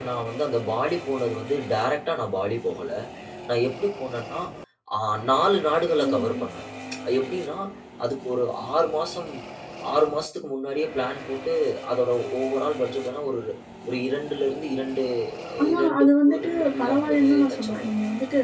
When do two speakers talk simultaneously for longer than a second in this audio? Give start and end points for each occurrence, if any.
15.7-17.8

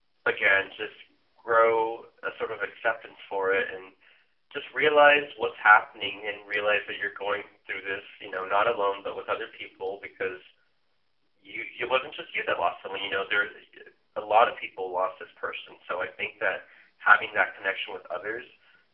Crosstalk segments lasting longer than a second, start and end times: none

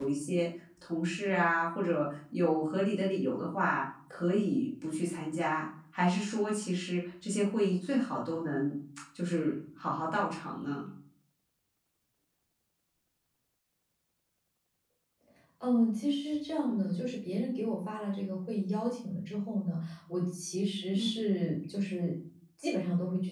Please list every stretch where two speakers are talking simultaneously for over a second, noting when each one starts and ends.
none

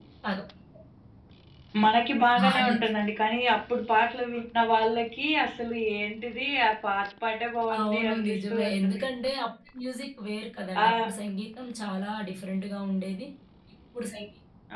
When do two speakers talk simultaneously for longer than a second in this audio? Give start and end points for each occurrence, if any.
7.8-9.0

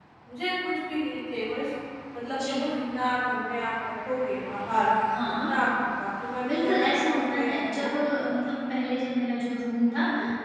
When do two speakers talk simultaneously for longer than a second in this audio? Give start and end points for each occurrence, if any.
6.5-7.9

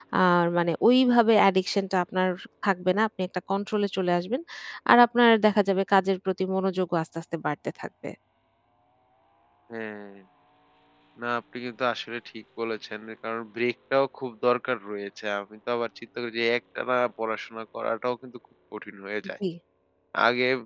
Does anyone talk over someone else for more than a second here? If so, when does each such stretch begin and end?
none

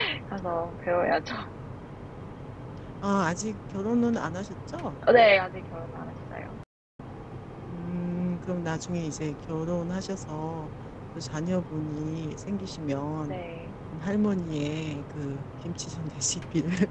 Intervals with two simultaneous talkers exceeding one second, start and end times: none

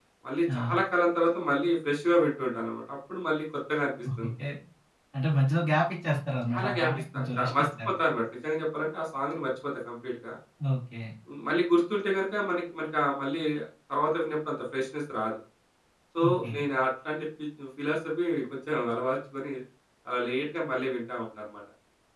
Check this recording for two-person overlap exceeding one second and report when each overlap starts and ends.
6.5-7.9

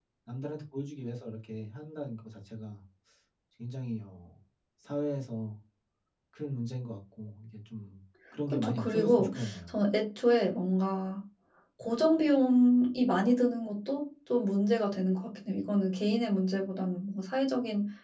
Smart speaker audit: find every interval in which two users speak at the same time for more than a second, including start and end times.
8.5-9.7

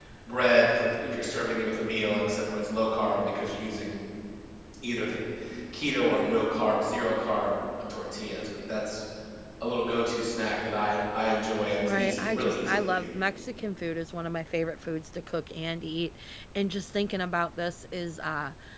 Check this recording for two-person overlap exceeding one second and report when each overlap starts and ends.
11.8-13.1

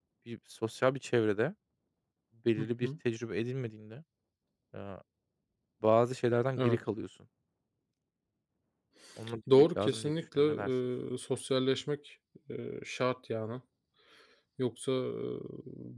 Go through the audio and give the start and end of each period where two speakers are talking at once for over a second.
9.5-10.7

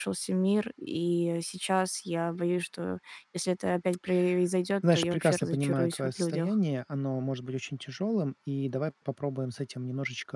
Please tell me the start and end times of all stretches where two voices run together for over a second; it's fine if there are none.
4.9-6.5

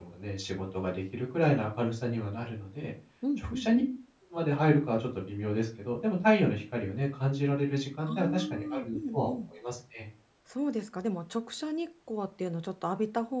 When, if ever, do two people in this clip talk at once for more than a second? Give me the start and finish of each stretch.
8.1-9.3

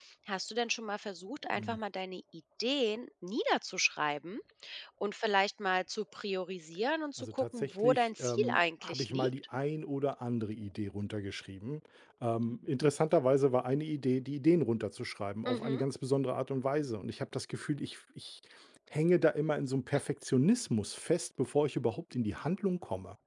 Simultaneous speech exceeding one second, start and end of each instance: 7.2-9.3

